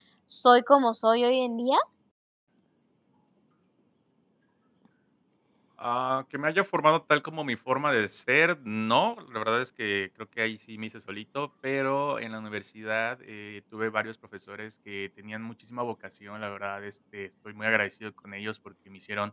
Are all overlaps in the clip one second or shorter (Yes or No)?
Yes